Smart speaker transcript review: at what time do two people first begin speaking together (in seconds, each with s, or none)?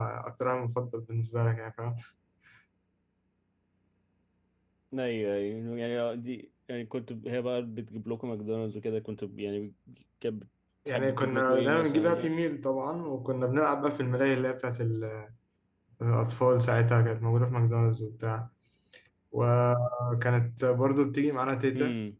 10.9 s